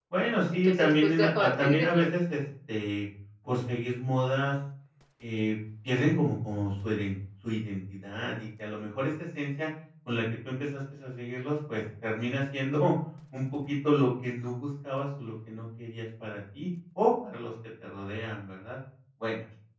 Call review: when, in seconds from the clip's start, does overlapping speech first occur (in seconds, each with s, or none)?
0.6 s